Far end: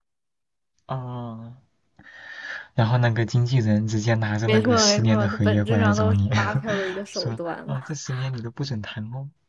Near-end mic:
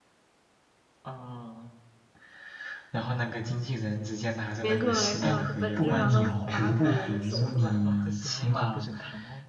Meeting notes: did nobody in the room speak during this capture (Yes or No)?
No